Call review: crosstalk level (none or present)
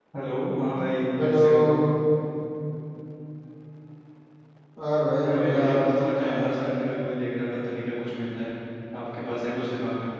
present